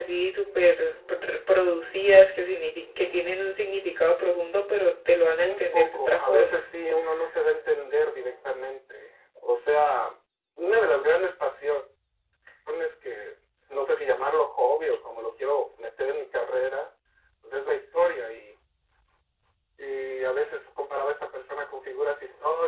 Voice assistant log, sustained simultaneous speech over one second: present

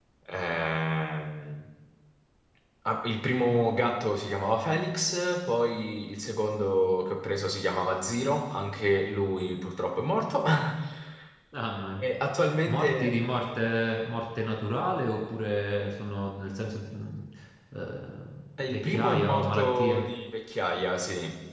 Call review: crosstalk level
present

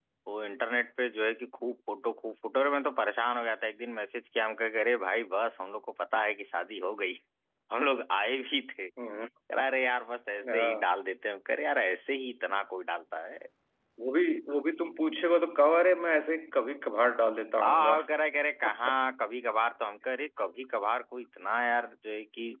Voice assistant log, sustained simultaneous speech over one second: none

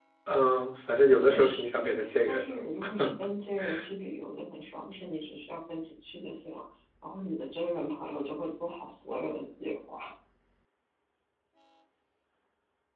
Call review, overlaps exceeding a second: present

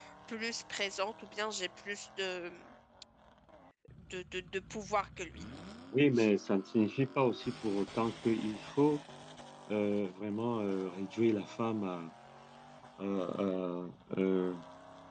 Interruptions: none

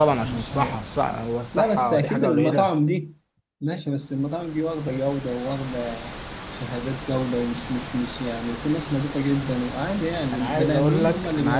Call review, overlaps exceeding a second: present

